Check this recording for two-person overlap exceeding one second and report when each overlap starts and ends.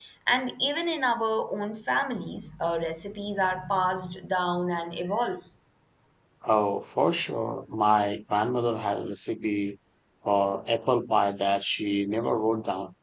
none

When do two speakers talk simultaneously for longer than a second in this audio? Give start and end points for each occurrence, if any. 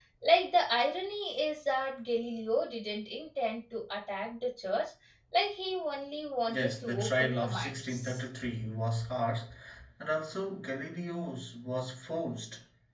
6.5-8.2

